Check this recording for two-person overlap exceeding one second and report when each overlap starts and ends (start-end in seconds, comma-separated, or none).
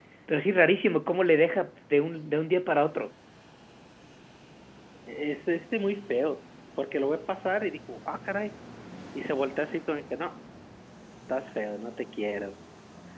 none